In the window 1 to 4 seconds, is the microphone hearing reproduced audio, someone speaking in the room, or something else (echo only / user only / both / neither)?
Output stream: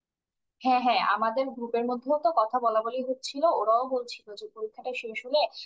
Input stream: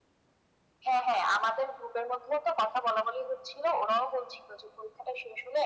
echo only